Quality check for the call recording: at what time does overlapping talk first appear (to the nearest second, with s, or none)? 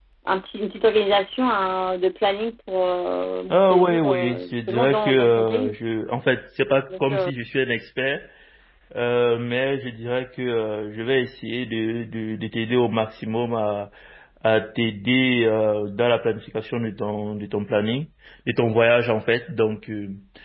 4 s